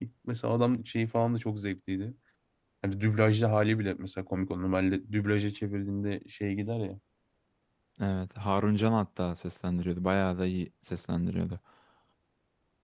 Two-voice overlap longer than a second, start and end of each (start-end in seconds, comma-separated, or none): none